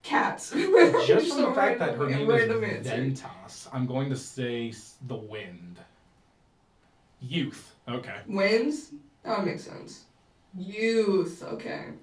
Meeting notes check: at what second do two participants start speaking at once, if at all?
1.1 s

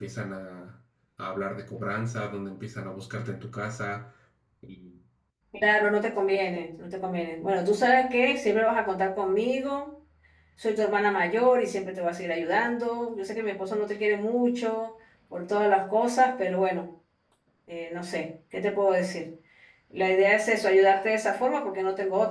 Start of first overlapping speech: none

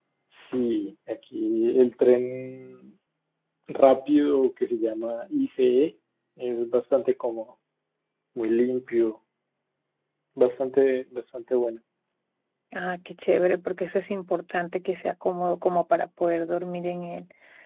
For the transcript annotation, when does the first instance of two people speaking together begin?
none

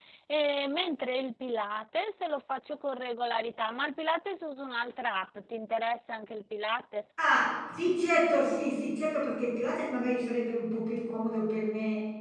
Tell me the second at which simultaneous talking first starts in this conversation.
none

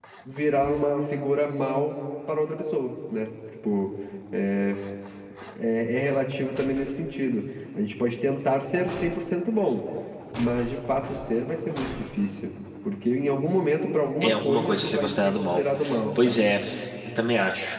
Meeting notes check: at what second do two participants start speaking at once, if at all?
14.2 s

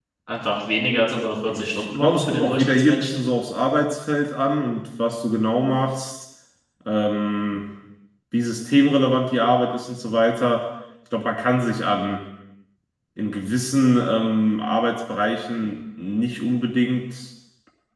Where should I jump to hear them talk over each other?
1.5 s

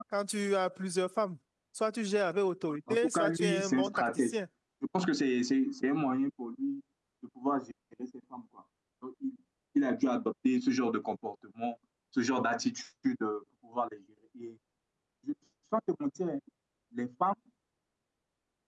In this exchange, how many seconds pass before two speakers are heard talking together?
2.9 s

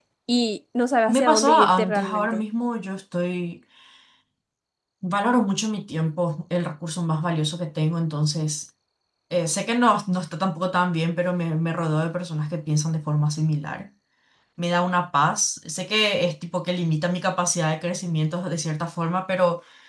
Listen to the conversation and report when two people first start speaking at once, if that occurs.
1.1 s

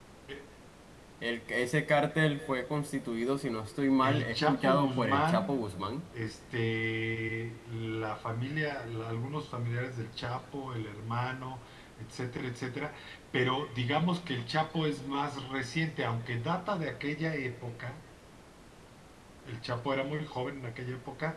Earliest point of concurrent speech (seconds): 4.0 s

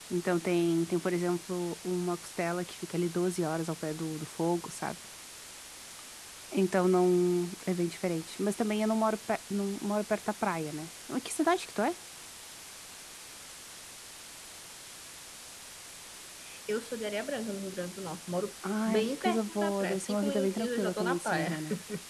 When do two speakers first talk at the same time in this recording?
18.6 s

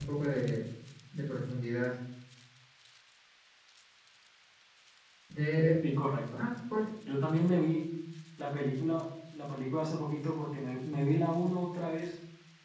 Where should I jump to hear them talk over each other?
none

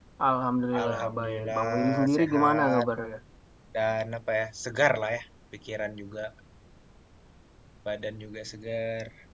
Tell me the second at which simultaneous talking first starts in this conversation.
0.8 s

